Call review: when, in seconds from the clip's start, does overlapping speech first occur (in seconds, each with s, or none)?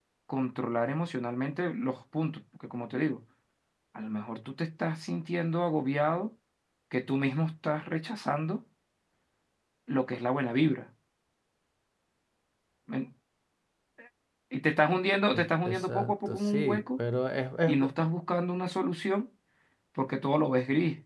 15.3 s